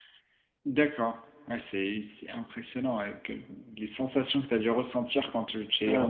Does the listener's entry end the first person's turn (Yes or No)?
Yes